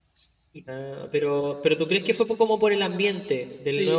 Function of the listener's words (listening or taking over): taking over